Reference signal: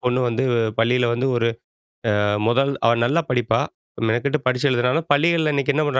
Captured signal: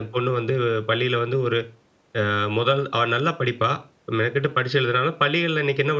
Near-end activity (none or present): none